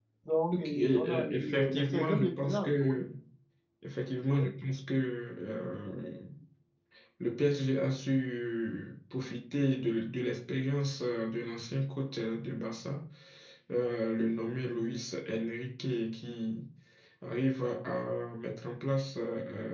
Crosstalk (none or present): present